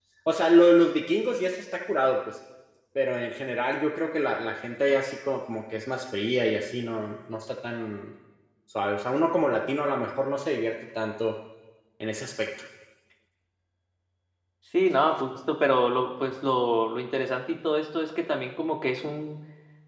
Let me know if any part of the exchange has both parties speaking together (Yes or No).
No